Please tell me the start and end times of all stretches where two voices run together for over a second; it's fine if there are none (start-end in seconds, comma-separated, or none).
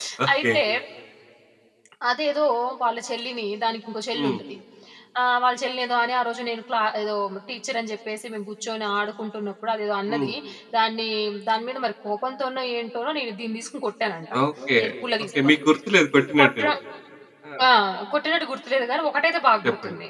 none